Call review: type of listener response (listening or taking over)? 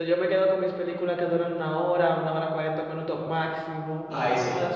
taking over